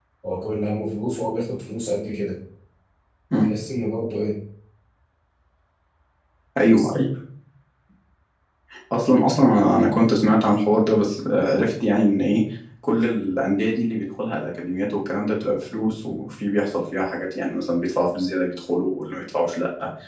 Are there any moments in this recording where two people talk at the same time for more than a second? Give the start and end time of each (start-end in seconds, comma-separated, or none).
none